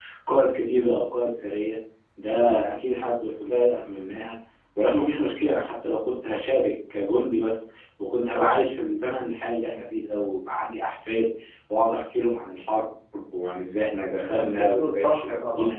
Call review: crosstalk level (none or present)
present